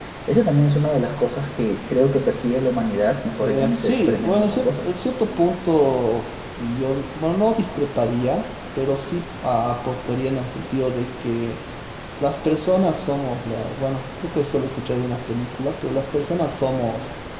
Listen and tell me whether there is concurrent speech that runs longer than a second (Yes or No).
Yes